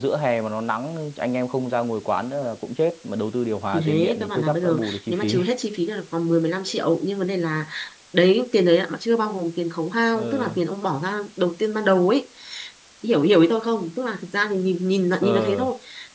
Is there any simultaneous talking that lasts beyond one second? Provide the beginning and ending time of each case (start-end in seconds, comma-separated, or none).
3.7-5.4